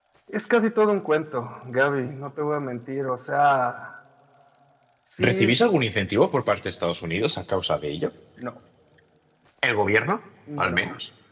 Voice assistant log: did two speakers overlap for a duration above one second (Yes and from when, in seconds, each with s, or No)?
No